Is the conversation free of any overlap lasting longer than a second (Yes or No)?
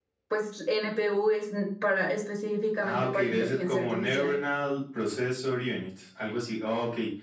No